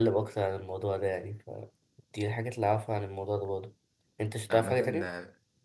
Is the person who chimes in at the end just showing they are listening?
No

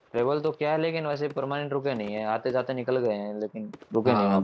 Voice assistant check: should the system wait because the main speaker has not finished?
No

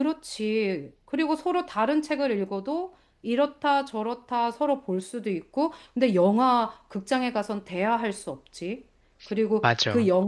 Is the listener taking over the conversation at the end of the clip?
No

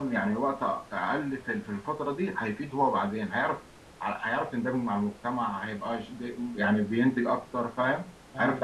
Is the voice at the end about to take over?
Yes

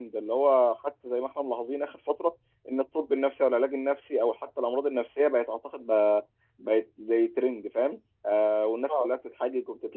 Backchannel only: Yes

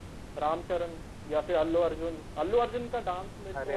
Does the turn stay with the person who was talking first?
Yes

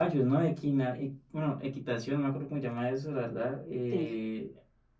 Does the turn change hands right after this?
No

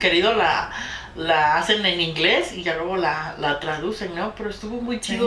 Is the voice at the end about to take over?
No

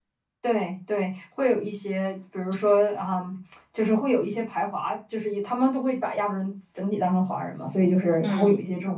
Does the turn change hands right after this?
No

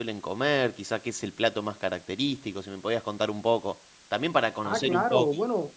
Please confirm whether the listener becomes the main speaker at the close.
Yes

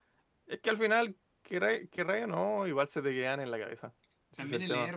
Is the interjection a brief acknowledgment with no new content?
No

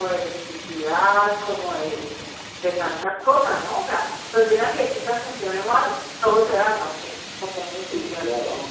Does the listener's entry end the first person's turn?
Yes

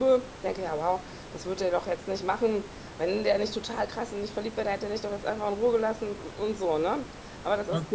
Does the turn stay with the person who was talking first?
Yes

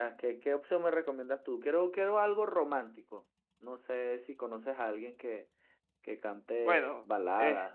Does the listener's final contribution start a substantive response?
Yes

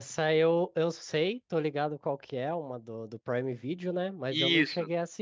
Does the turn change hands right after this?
No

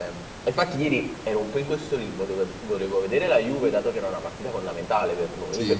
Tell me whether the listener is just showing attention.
Yes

